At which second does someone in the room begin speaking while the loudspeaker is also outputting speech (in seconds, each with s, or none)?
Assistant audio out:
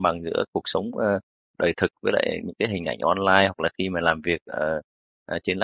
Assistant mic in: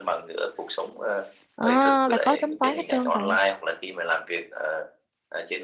1.6 s